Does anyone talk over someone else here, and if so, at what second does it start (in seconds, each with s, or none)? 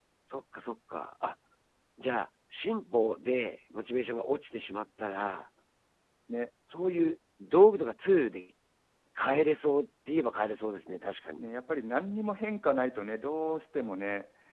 none